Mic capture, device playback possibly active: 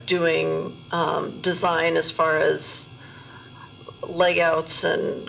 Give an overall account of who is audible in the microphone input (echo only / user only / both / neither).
echo only